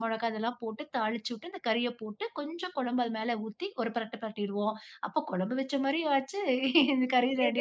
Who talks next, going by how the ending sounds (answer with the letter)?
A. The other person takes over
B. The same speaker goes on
A